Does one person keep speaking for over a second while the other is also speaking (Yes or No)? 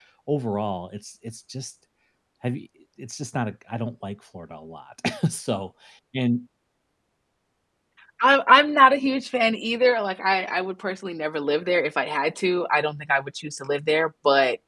No